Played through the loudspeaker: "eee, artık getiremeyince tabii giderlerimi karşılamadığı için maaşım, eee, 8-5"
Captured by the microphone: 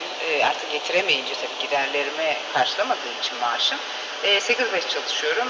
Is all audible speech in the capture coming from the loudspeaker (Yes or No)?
Yes